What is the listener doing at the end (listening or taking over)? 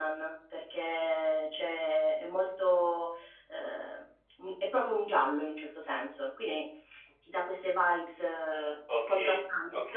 taking over